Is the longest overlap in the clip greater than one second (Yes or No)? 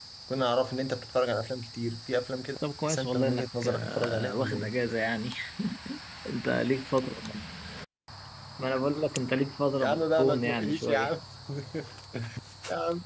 Yes